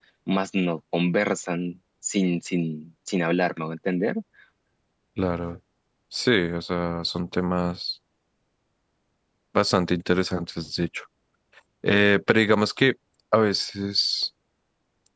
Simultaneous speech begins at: none

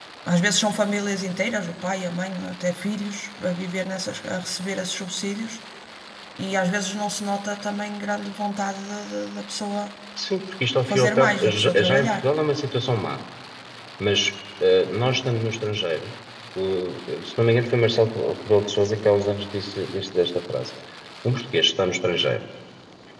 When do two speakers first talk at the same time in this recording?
10.9 s

